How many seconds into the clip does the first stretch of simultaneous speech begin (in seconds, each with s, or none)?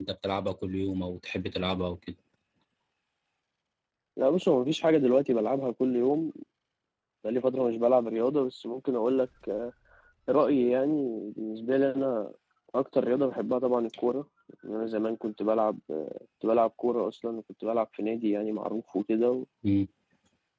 none